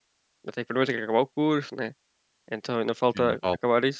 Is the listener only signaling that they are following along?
Yes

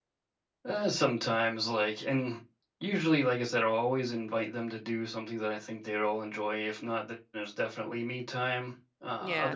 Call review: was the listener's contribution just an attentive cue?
Yes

